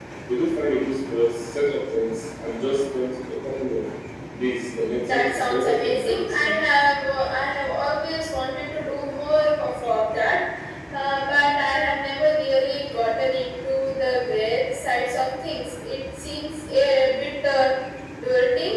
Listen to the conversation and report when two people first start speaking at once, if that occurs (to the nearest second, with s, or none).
5 s